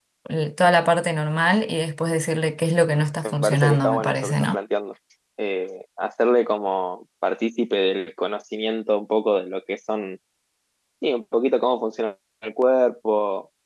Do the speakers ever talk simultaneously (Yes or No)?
Yes